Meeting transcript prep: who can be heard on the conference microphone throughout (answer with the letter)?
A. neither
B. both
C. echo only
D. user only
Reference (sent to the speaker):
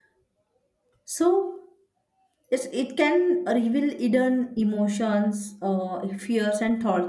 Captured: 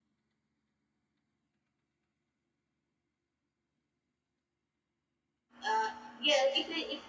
D